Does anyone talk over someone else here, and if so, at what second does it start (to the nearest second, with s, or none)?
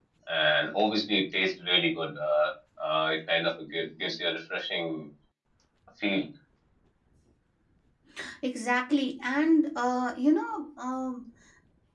none